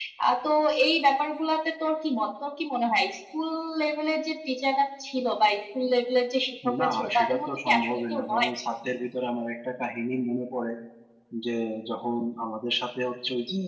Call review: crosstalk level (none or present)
present